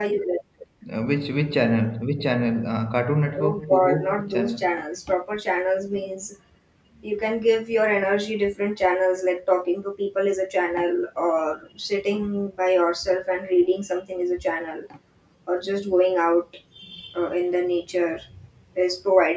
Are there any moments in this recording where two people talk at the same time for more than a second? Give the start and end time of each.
3.4-4.6

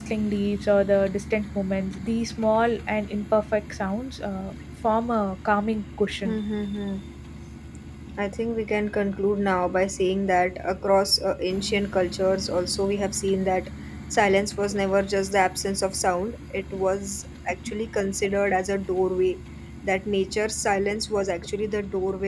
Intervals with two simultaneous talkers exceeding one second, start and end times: none

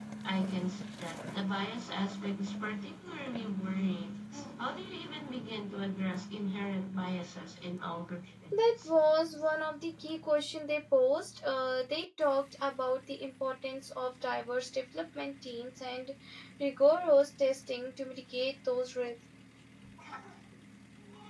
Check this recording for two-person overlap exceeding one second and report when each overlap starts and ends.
none

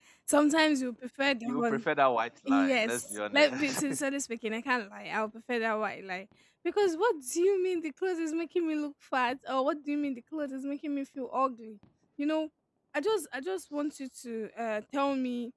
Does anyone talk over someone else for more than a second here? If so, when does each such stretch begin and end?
2.5-3.8

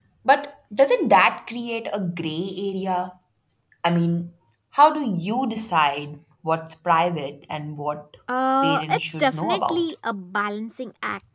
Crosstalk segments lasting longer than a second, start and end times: 8.6-9.8

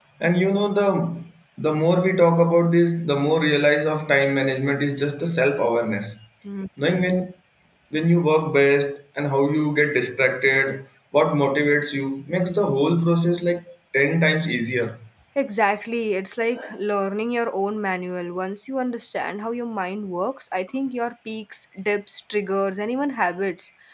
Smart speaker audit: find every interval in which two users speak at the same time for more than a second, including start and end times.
none

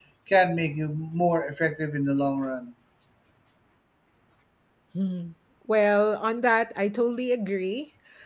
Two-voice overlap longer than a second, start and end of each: none

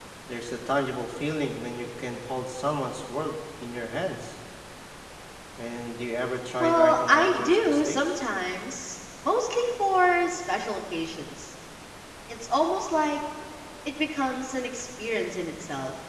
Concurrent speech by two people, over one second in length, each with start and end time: 6.6-8.1

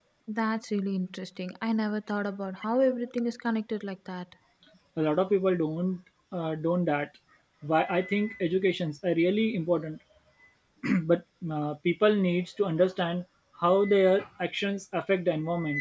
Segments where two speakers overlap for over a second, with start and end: none

